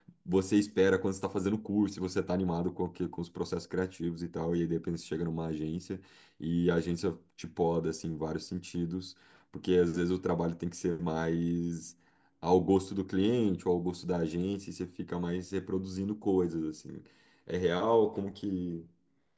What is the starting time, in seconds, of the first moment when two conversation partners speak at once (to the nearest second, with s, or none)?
none